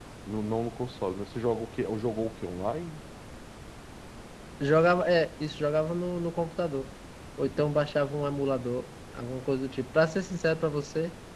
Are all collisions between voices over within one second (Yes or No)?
Yes